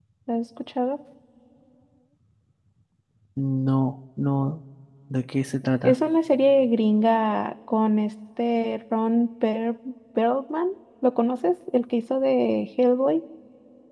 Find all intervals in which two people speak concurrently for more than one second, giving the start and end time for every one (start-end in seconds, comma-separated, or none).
none